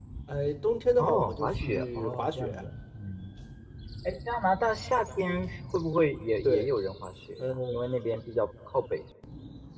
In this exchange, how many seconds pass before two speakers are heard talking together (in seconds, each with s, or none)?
1.0 s